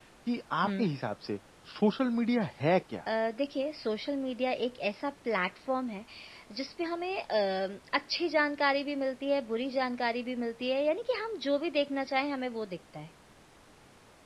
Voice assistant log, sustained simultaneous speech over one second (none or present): none